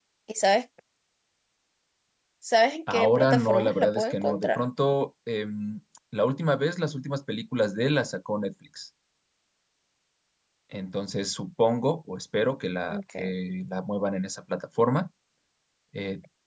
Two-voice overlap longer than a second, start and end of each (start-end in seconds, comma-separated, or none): 2.9-4.6